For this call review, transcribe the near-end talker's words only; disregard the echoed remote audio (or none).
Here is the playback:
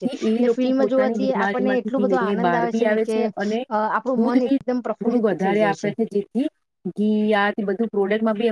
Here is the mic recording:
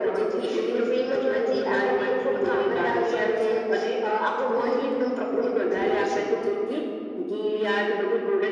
none